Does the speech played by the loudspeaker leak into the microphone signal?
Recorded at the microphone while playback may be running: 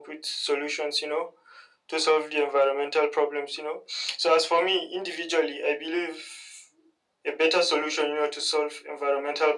Yes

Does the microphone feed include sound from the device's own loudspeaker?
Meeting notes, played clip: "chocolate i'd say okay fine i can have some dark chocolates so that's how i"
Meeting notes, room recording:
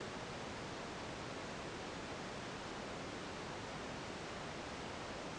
No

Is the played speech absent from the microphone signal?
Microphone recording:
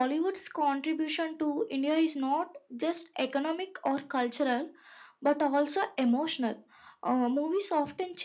No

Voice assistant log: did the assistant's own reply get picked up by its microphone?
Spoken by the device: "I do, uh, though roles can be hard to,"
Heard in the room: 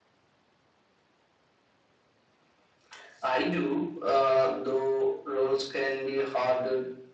Yes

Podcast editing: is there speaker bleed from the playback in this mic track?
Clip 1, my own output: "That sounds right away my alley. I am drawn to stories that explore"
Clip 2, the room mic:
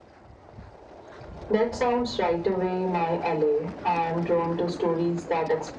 Yes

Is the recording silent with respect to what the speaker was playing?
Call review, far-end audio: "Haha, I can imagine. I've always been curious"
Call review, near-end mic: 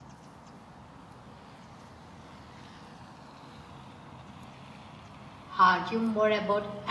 Yes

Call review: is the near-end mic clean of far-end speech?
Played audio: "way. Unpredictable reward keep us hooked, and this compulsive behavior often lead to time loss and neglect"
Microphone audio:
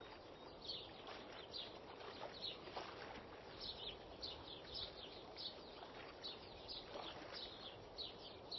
Yes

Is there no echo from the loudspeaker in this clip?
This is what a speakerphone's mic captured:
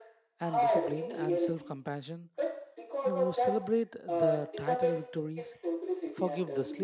No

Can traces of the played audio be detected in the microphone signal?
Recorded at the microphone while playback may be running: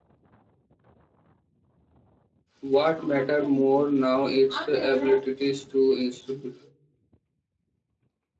No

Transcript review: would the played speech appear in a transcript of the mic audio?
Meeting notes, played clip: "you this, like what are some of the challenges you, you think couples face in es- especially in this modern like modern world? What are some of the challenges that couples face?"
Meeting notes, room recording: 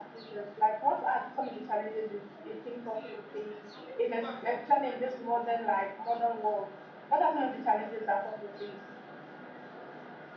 Yes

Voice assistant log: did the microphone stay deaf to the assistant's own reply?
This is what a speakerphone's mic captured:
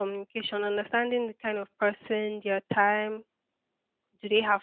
Yes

